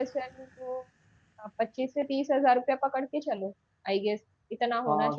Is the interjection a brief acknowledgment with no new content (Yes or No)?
No